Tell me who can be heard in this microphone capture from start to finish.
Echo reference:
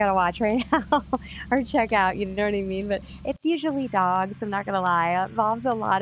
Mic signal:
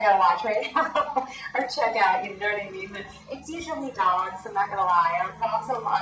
echo only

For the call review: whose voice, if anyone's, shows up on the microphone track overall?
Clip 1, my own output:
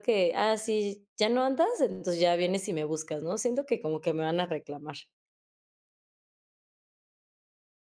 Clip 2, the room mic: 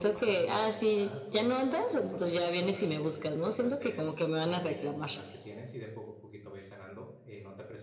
both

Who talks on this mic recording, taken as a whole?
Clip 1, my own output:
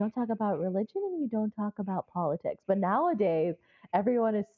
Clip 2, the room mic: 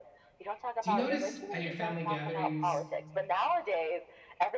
both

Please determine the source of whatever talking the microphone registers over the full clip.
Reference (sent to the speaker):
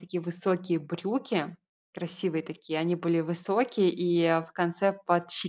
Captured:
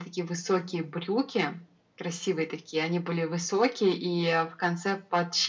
echo only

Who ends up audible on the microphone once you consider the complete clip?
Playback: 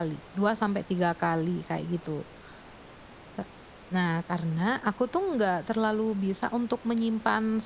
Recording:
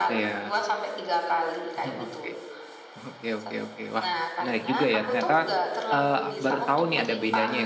both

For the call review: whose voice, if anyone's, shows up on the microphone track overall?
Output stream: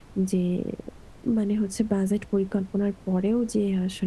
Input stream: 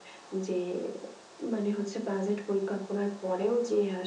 echo only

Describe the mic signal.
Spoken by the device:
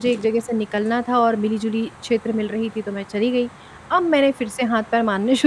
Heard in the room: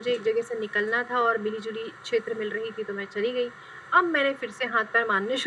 echo only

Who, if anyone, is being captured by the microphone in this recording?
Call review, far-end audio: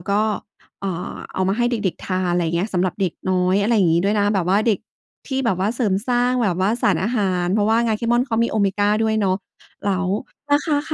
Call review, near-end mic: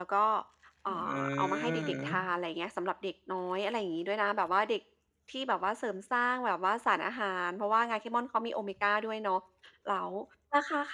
both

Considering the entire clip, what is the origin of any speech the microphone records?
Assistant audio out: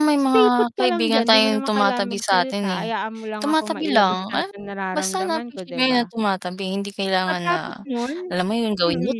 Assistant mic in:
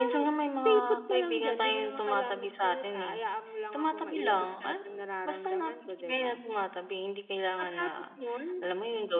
echo only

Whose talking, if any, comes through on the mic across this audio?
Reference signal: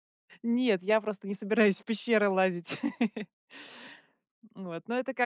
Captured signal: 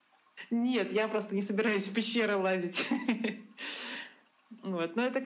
echo only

